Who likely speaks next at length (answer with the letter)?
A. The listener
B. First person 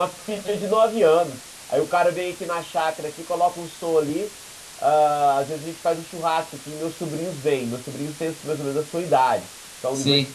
B